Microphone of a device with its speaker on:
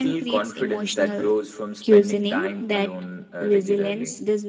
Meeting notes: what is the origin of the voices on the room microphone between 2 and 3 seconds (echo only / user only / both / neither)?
both